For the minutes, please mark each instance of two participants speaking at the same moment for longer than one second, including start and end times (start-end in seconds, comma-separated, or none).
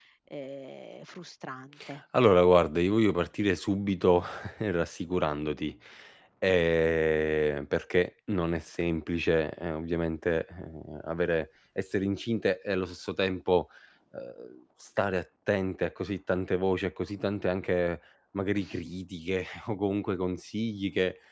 none